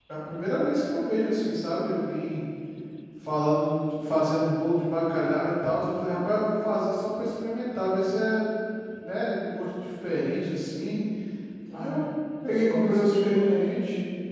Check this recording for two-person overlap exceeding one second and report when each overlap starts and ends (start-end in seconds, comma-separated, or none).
12.5-13.8